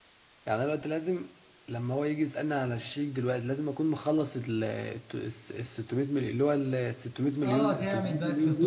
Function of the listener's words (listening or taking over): taking over